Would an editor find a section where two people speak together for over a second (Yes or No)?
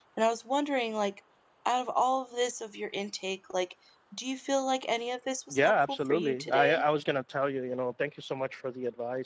Yes